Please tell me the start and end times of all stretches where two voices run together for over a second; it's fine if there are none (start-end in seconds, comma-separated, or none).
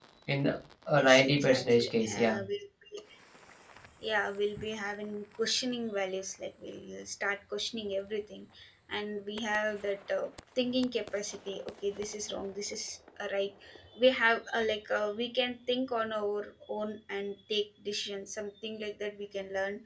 1.0-2.4